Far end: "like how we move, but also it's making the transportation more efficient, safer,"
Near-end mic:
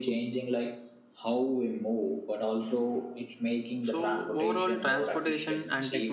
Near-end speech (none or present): present